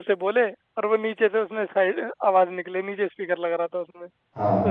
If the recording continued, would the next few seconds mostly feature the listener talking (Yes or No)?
No